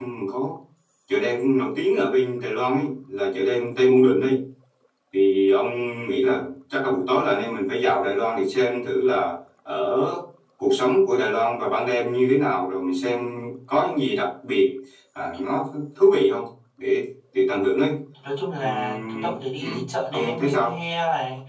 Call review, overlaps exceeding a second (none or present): present